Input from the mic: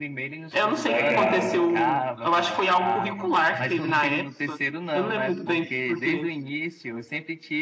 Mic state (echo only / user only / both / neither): both